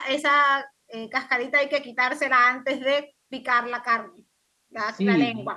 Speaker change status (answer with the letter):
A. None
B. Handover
B